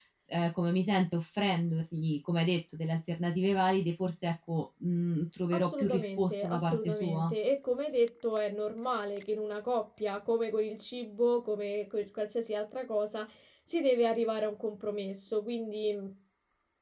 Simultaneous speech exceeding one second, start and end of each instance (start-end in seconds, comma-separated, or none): 5.5-7.3